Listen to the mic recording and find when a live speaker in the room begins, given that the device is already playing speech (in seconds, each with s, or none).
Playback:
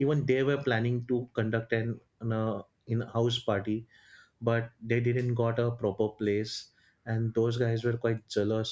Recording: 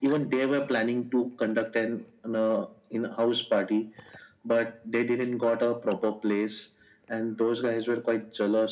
none